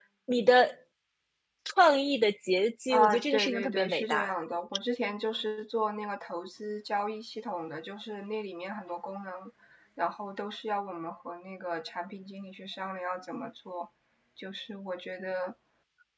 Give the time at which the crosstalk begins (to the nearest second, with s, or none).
3 s